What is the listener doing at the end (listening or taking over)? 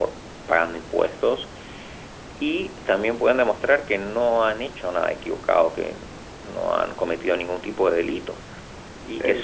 listening